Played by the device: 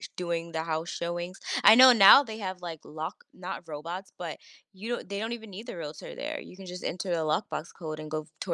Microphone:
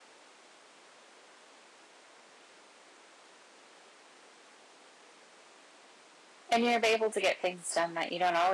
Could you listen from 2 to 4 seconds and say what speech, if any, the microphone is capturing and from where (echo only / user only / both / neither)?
neither